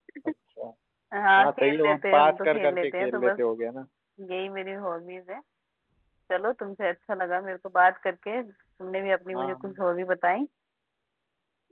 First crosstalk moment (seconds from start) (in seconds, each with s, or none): 1.4 s